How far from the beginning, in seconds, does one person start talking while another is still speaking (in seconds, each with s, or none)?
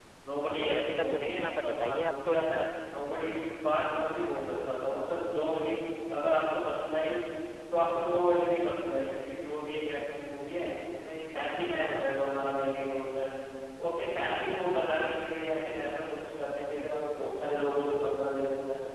0.6 s